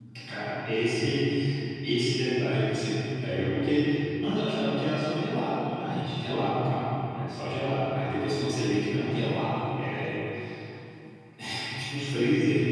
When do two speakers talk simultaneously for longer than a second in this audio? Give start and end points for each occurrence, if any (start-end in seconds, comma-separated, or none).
none